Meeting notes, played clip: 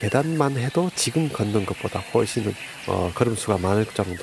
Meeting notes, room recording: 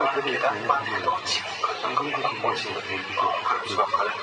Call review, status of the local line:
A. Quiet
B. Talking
B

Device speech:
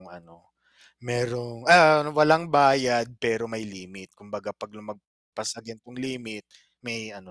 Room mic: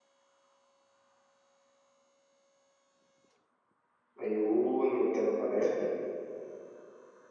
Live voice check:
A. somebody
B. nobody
A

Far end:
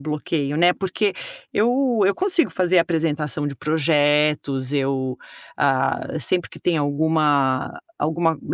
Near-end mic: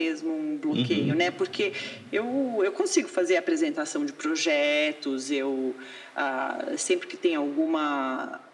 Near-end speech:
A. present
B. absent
A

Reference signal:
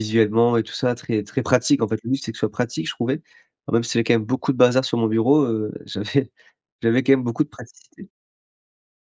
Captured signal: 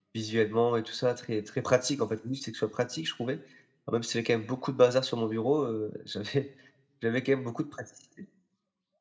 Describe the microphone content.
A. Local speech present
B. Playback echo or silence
B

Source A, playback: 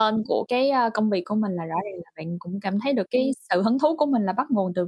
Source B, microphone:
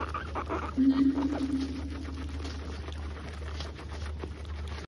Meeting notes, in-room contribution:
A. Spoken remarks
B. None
A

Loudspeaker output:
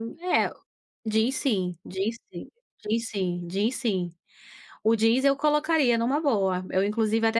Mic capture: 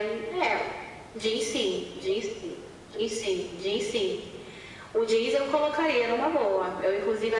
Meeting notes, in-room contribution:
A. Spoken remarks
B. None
B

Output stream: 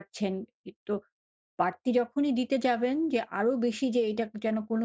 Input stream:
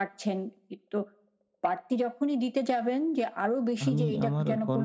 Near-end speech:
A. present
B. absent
A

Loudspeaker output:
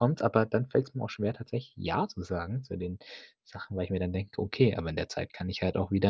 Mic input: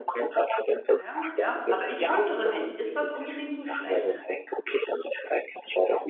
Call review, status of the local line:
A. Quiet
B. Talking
B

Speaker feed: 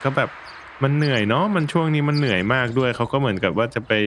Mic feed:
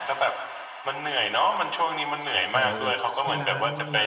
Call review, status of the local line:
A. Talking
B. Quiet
A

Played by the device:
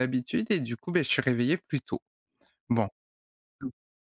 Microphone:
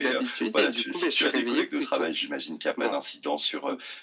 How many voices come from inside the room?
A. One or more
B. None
A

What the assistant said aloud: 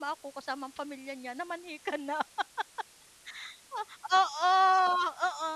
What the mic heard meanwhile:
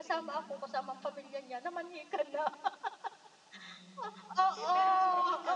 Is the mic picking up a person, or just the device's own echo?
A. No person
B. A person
B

